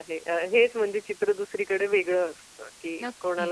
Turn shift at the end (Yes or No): No